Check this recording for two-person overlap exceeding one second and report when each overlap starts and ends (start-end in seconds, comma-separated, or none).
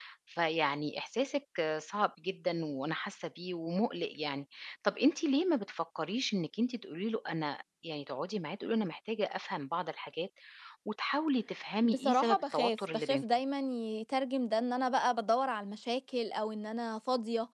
11.8-13.2